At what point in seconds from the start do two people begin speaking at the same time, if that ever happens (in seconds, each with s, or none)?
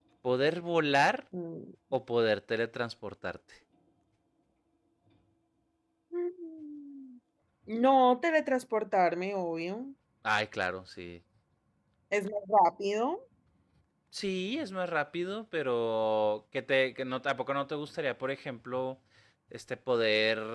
none